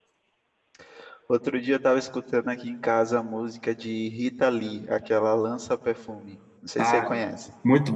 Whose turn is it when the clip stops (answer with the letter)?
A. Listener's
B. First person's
A